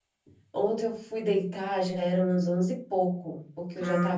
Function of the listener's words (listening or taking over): listening